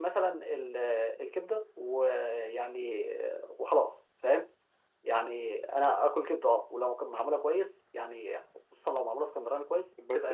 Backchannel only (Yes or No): No